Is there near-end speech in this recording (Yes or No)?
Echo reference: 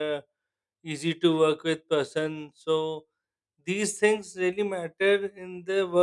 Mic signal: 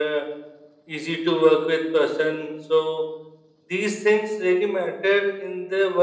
No